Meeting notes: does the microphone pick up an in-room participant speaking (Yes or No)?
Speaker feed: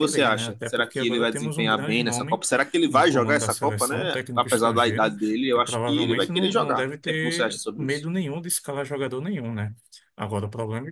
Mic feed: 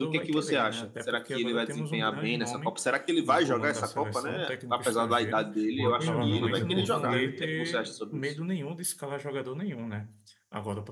Yes